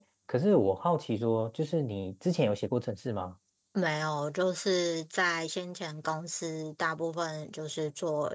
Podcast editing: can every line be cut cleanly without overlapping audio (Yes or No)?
Yes